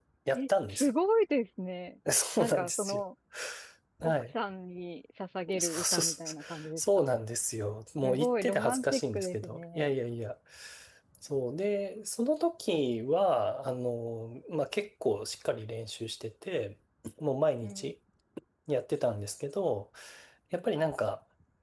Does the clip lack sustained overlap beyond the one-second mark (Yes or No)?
No